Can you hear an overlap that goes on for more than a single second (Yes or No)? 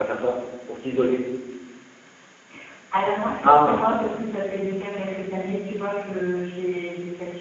No